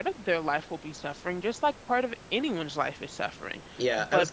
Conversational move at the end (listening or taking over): taking over